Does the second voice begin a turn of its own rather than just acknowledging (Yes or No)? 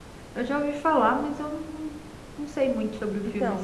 Yes